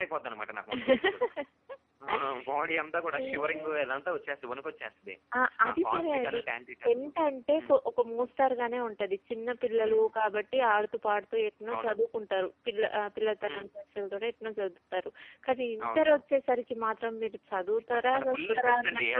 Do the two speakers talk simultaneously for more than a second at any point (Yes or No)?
Yes